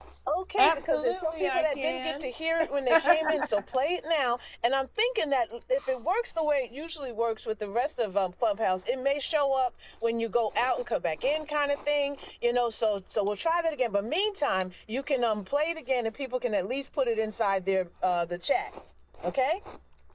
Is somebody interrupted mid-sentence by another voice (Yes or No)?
Yes